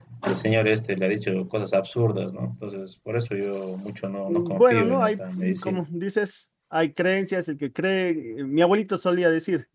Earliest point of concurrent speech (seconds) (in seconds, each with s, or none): 4.3 s